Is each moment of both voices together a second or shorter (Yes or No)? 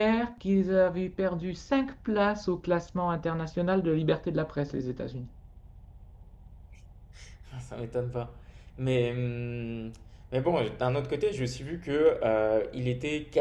Yes